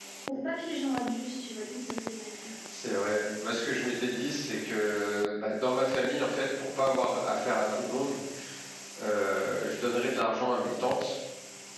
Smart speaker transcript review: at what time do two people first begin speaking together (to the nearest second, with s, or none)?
none